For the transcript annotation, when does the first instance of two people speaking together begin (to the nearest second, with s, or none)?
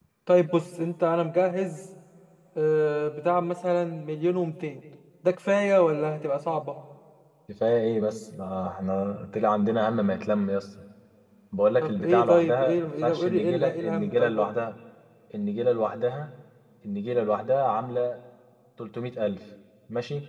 12 s